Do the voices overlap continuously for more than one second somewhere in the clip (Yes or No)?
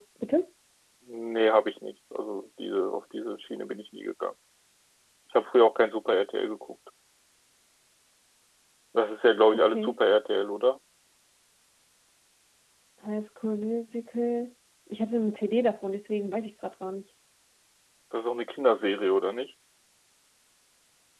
No